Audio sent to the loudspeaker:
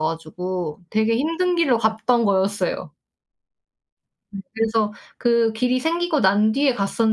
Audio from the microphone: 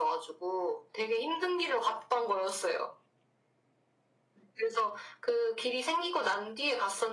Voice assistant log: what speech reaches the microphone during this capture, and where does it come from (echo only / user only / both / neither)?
echo only